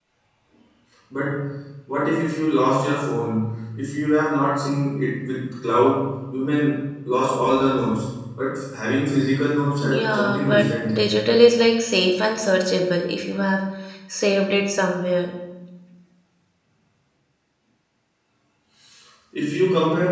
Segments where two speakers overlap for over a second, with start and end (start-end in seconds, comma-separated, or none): 9.9-11.1